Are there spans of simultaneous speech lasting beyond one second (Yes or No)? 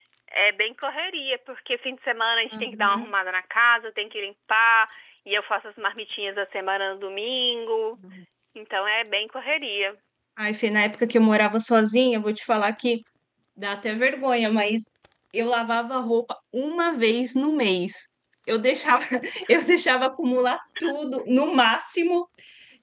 No